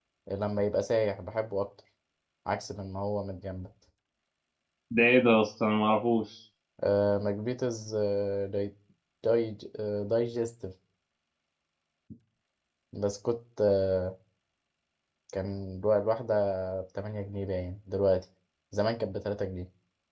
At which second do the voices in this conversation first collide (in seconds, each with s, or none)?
none